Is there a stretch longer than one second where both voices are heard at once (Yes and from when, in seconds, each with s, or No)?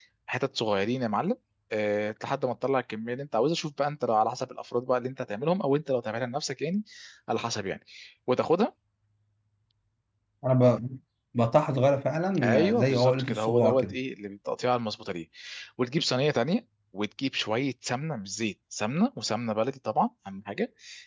Yes, from 12.4 s